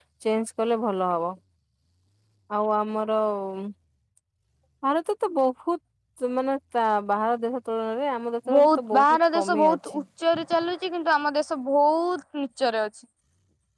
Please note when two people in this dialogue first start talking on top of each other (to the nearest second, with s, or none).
8 s